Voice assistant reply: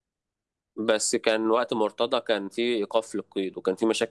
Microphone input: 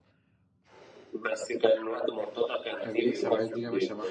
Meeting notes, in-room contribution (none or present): present